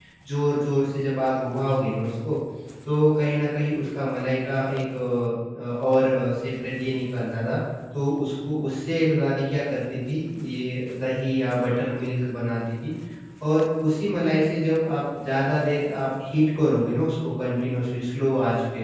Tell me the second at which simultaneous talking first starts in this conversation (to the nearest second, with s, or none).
none